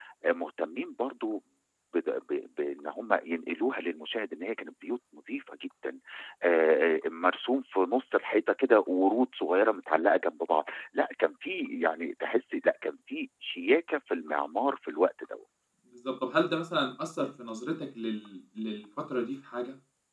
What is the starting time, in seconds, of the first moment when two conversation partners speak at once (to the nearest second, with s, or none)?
none